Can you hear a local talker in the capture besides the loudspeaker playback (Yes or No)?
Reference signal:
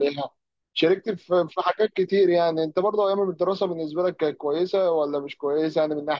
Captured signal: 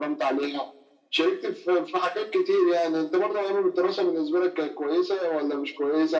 No